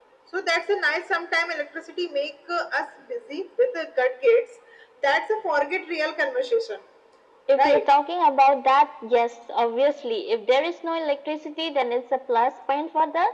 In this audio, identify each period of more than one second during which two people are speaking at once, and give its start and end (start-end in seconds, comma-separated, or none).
none